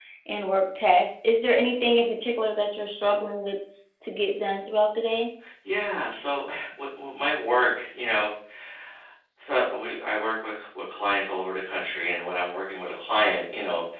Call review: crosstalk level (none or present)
none